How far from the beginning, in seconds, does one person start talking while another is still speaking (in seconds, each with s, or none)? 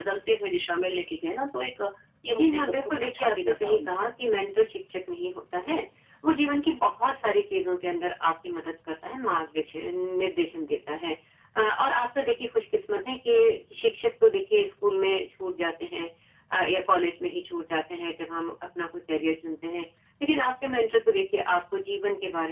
2.4 s